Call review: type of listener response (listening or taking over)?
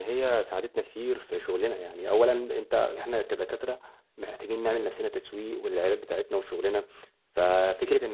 listening